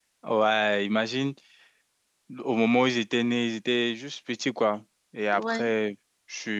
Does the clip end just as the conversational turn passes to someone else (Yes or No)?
No